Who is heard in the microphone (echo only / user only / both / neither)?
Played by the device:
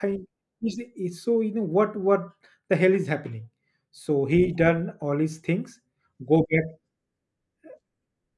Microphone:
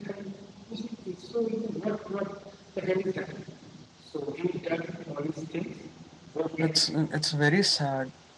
both